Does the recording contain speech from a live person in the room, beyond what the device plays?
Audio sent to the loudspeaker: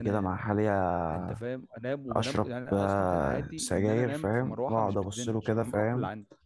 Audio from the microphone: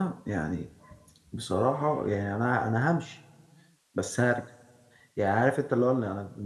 Yes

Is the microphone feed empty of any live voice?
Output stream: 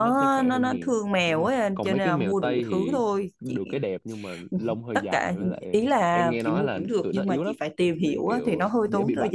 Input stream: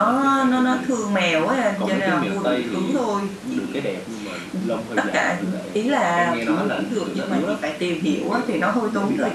Yes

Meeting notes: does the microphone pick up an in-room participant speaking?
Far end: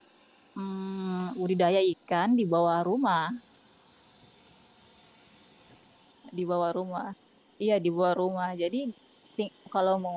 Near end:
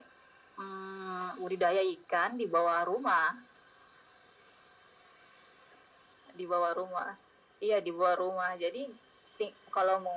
No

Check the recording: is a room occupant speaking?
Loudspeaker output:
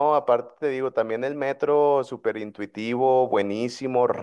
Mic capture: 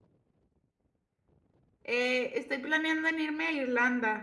Yes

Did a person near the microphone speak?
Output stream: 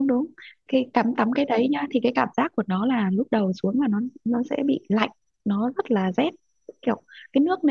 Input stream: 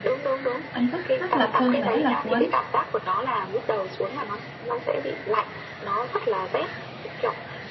Yes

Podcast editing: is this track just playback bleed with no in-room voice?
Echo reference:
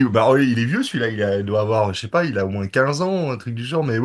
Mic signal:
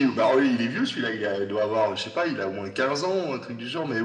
Yes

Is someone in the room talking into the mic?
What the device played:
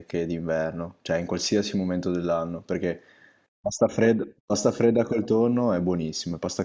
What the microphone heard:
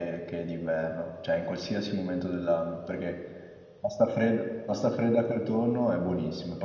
No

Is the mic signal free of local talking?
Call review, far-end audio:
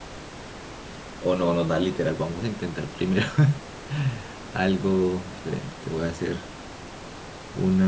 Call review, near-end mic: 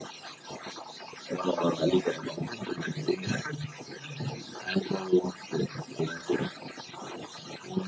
Yes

